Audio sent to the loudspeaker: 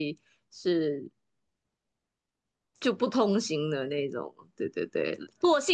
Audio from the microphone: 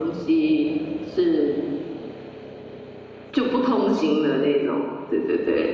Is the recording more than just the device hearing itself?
No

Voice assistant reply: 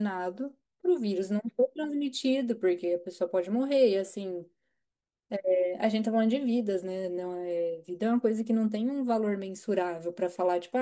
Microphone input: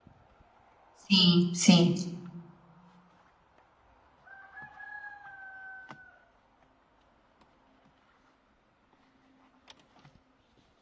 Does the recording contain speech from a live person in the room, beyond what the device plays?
Yes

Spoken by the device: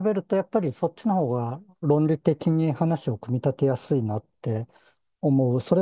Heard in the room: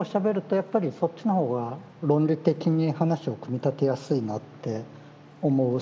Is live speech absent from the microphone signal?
Yes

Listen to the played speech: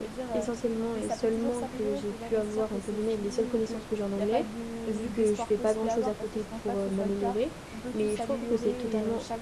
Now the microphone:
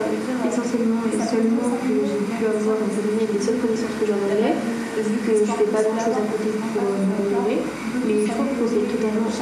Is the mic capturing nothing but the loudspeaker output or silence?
Yes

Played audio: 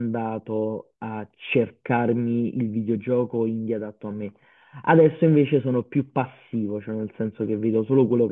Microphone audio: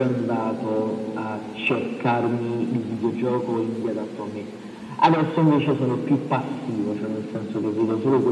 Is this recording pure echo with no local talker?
Yes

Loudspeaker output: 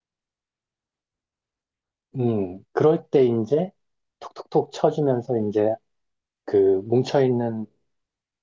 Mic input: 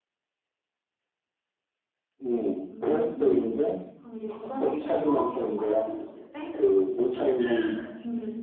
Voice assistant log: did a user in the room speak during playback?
Yes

